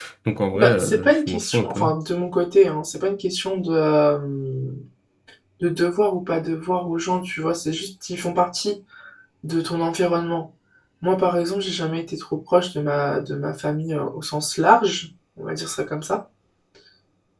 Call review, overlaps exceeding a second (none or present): present